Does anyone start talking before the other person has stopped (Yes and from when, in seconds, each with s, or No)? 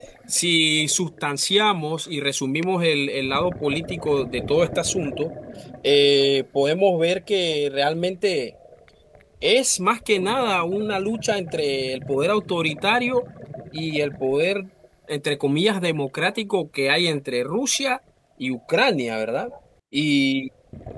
No